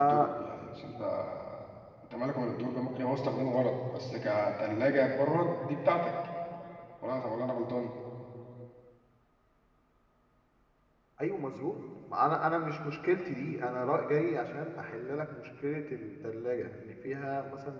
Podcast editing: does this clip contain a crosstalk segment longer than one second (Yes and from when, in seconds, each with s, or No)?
No